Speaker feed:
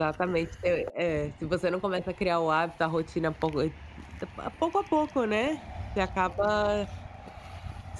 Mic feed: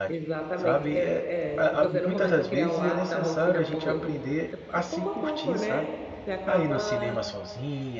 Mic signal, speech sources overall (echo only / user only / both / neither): both